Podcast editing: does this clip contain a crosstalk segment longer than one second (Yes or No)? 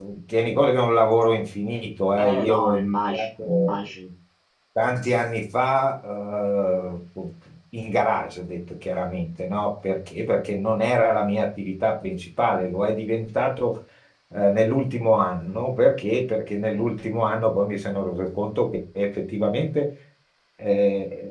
Yes